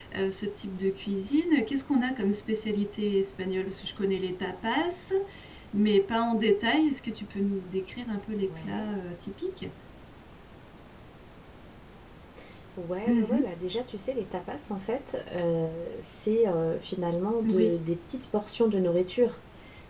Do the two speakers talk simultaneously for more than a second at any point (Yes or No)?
No